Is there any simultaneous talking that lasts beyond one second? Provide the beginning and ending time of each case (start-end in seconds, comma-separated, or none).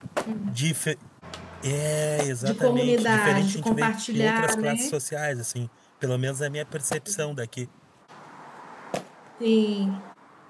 2.4-5.0